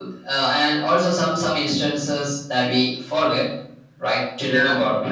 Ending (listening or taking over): listening